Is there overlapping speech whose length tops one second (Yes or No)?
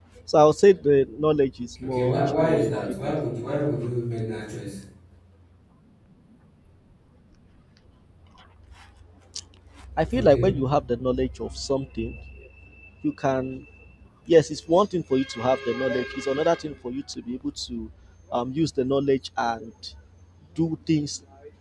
Yes